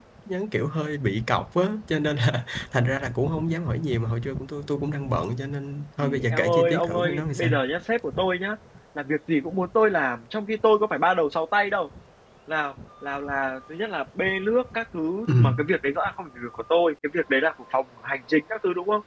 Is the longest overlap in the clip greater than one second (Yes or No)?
Yes